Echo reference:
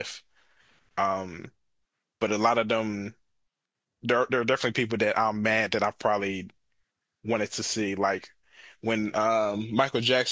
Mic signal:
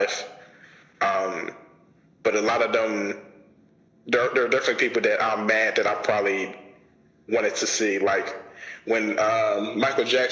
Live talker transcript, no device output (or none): none